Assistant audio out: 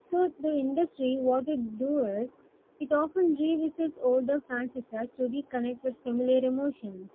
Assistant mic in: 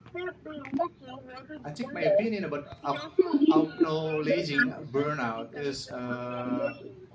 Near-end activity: present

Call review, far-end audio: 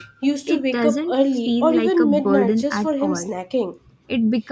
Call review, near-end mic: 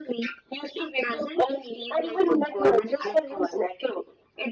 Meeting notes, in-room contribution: none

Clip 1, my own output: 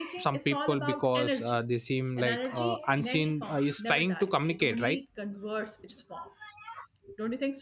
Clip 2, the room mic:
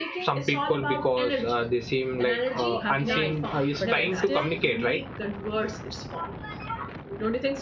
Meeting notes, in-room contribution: present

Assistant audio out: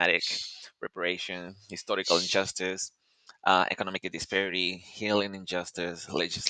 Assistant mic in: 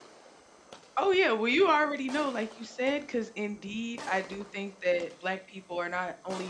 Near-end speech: present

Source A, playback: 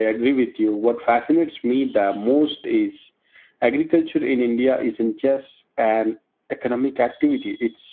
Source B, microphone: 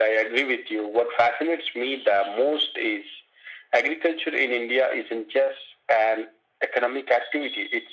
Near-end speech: none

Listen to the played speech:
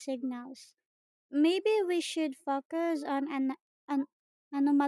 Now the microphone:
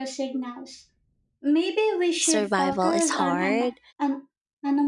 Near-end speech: present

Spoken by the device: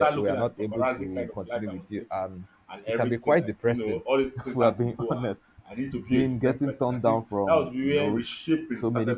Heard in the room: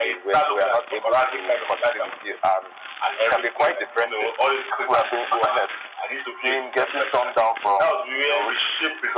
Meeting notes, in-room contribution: none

